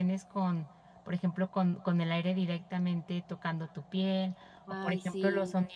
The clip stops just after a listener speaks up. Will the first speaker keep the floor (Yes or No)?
Yes